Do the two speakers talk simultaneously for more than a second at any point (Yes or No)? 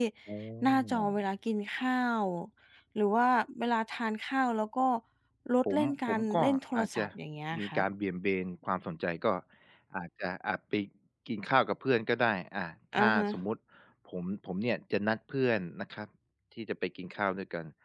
Yes